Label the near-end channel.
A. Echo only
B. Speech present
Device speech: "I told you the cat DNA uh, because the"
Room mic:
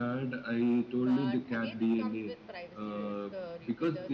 B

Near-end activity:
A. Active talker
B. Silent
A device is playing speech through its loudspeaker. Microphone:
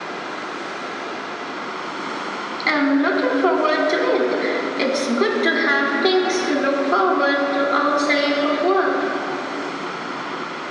B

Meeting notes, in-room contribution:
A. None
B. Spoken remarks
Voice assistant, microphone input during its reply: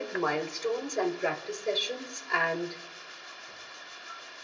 A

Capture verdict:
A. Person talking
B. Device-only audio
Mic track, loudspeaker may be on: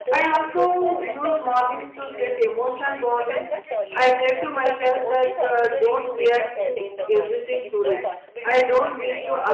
A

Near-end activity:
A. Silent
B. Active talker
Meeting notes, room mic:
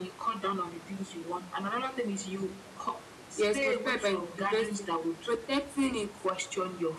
B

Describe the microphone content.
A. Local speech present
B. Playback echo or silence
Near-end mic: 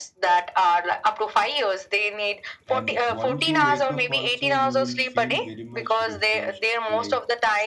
A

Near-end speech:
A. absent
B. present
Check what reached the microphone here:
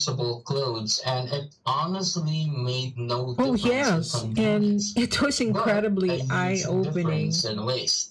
B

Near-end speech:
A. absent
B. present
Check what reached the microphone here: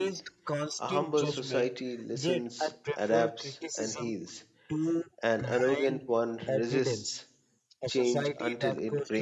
B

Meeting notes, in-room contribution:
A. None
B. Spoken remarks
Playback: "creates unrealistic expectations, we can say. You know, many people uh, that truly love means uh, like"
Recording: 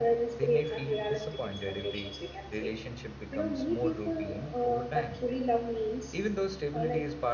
B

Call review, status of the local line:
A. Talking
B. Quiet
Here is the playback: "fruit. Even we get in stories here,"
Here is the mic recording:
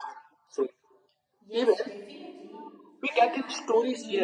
A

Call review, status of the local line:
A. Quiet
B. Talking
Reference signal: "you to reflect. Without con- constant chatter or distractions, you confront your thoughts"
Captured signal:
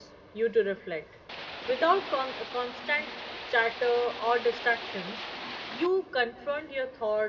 A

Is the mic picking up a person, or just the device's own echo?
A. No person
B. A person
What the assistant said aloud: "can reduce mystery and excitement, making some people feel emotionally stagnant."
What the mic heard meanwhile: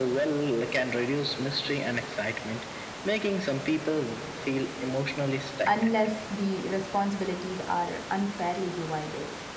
B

